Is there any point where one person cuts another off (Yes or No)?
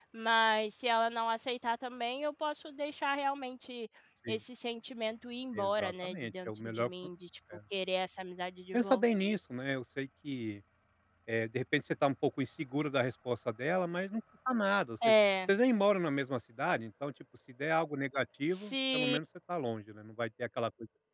Yes